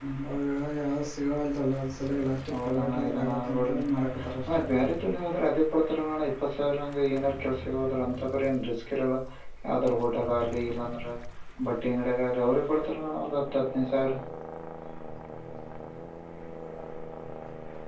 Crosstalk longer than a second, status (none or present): present